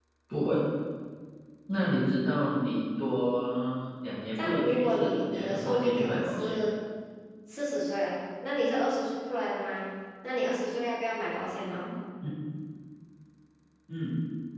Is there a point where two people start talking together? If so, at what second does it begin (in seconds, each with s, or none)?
4.4 s